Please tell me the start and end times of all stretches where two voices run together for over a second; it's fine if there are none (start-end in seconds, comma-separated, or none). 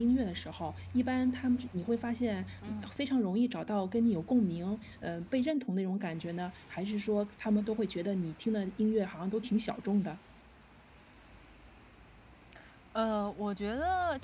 none